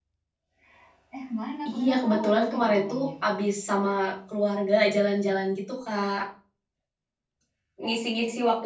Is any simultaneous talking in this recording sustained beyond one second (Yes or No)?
Yes